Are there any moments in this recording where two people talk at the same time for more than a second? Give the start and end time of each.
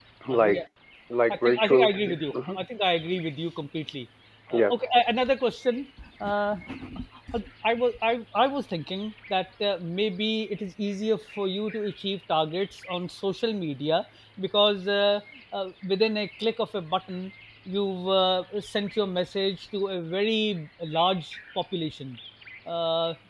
1.3-2.6

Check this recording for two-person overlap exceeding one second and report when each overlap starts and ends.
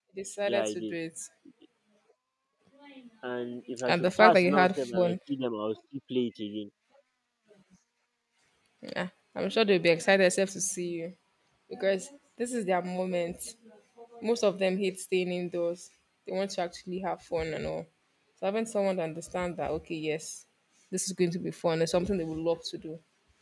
3.9-5.2

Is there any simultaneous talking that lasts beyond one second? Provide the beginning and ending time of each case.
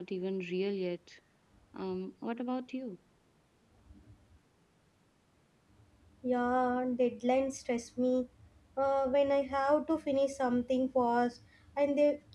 none

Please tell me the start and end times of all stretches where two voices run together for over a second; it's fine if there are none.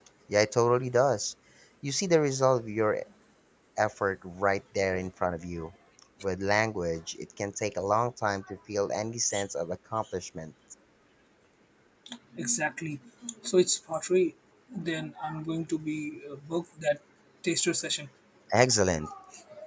none

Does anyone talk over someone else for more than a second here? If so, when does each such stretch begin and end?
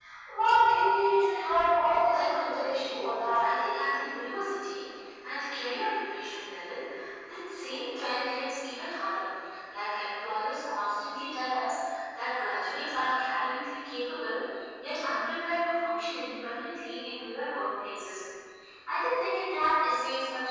2.1-3.5

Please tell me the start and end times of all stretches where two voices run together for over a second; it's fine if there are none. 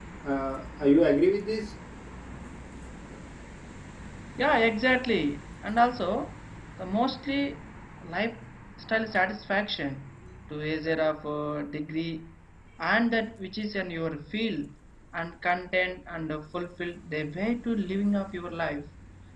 none

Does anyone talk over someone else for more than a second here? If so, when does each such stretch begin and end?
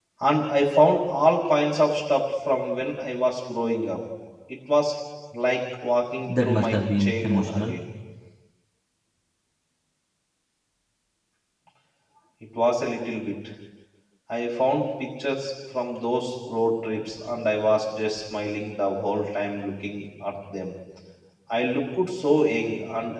6.2-7.8

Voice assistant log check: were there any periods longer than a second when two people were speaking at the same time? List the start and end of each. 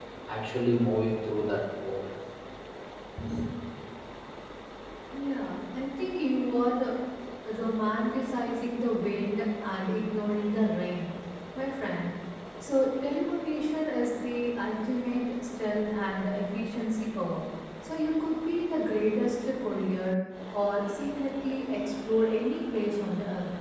none

